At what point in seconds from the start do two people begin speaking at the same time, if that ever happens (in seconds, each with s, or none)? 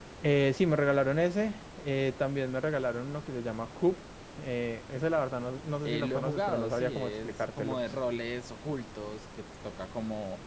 5.8 s